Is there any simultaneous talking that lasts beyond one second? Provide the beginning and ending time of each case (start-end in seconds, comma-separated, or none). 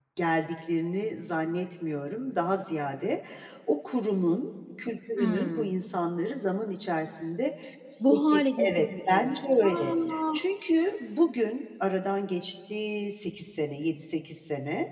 8.1-9.9